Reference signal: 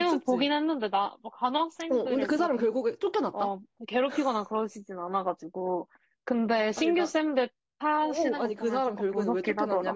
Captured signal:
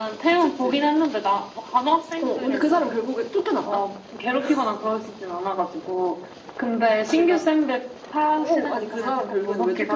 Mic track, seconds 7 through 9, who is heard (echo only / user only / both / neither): echo only